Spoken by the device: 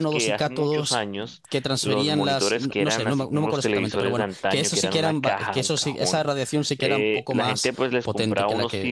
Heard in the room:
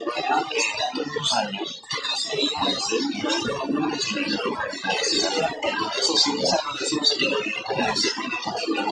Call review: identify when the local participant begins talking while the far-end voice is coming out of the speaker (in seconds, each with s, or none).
none